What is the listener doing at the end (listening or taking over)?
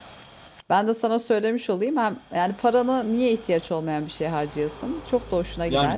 taking over